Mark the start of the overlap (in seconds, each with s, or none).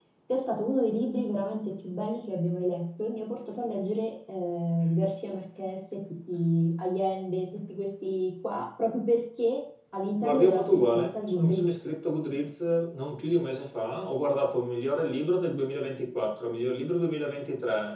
10.2 s